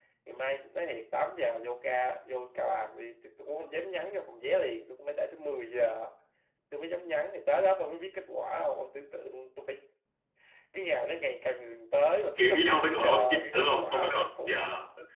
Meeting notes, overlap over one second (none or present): present